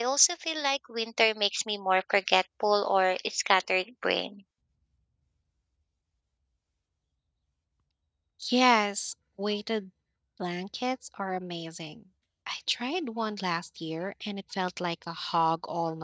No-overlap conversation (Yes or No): Yes